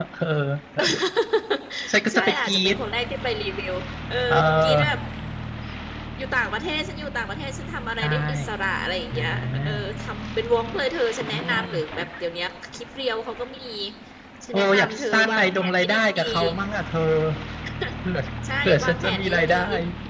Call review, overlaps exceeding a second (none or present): present